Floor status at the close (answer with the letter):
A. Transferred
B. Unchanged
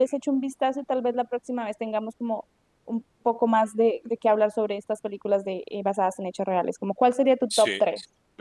A